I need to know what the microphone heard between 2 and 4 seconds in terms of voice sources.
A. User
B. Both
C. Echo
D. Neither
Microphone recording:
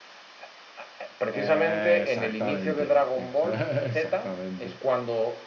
B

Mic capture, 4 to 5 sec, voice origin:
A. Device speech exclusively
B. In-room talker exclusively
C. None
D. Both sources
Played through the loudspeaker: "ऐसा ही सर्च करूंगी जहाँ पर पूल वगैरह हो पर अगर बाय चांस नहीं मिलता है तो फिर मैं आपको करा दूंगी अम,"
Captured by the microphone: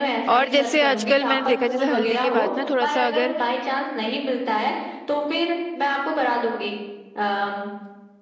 A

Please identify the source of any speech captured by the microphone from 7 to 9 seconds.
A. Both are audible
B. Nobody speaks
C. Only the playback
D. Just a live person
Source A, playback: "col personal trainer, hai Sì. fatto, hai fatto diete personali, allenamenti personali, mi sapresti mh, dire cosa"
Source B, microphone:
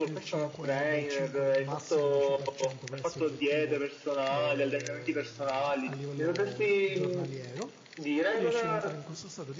A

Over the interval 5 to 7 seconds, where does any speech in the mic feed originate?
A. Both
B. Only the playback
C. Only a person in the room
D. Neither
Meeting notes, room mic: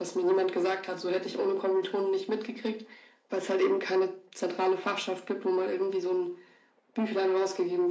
B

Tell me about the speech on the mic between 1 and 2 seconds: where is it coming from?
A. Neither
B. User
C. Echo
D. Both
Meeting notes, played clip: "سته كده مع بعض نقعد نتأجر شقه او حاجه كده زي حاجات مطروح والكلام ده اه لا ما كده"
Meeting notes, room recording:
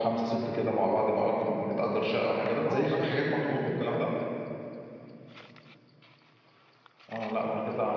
C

